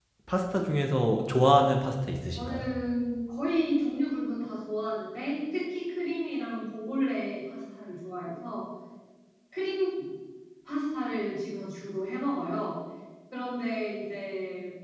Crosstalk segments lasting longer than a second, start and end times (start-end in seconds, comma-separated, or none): none